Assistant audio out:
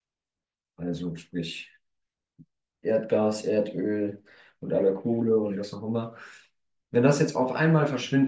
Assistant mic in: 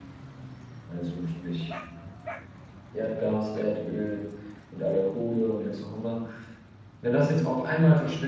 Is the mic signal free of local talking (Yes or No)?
Yes